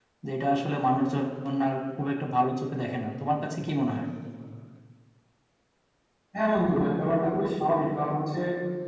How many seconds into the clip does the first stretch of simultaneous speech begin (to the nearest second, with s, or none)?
none